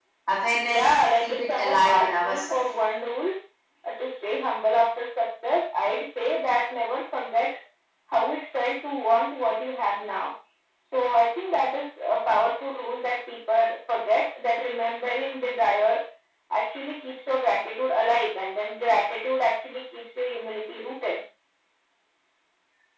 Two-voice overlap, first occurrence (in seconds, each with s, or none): 0.7 s